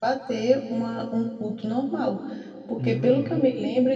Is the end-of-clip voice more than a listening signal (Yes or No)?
No